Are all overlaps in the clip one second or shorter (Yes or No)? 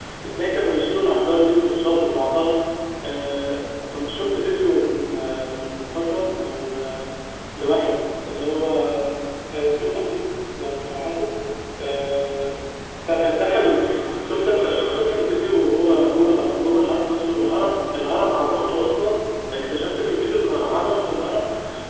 No